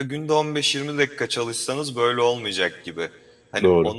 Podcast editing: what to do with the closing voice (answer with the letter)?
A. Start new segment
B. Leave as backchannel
B